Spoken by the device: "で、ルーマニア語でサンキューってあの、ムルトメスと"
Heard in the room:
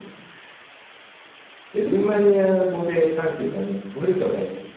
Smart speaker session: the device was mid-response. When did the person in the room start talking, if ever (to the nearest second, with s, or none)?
none